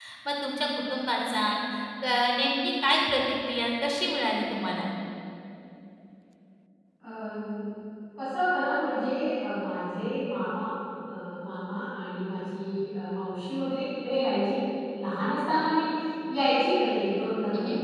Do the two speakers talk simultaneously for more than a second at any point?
No

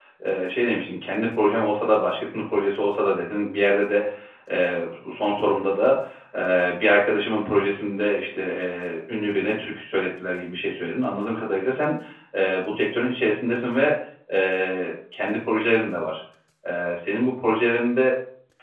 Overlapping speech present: No

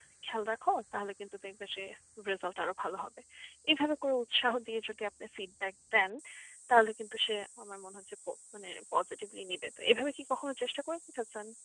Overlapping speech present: No

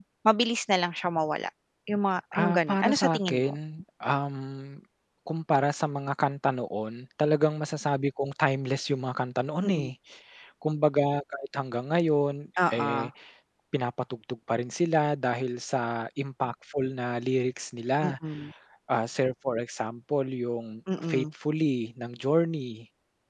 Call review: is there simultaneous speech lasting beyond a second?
Yes, from 2.3 s

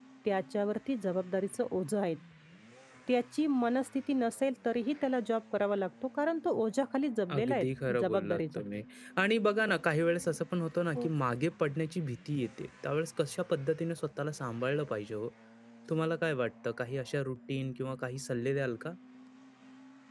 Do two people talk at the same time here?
Yes, from 7.3 s

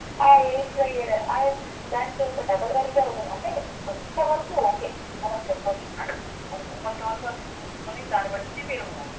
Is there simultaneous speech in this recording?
No

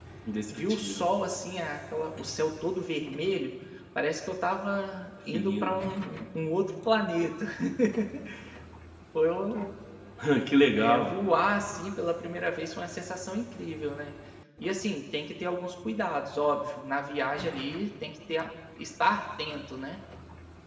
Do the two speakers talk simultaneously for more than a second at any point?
No

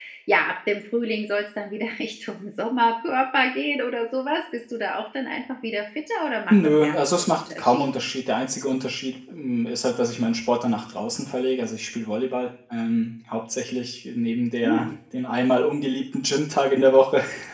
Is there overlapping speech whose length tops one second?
Yes, from 6.5 s

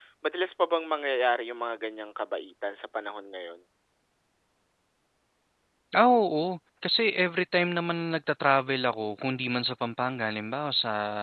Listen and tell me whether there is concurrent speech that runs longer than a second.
No

